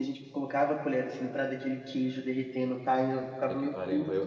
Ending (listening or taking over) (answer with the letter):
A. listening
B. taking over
B